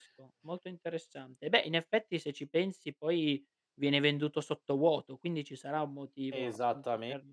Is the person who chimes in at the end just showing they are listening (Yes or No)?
No